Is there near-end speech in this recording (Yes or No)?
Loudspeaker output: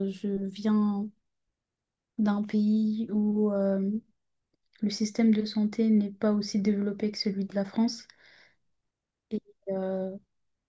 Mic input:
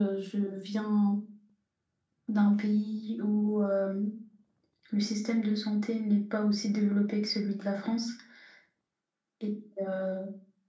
No